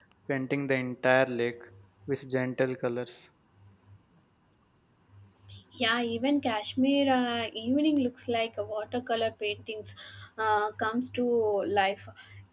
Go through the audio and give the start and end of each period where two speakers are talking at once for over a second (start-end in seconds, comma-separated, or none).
none